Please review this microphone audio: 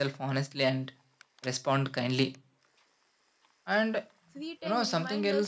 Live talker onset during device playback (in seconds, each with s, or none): 4.3 s